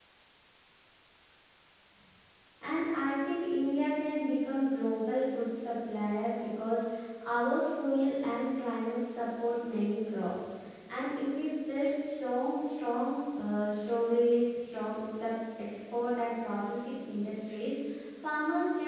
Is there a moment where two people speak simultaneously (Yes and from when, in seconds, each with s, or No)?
No